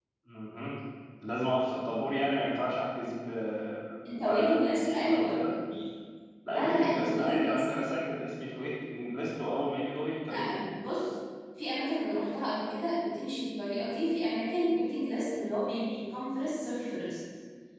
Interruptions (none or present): present